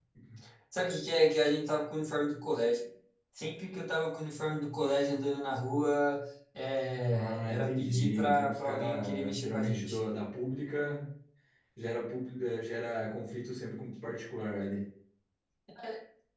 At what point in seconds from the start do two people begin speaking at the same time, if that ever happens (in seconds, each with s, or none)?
7.1 s